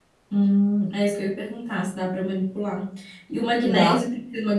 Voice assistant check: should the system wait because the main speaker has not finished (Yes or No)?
Yes